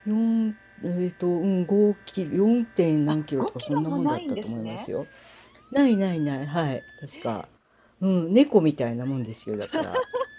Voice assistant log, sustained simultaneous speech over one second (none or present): present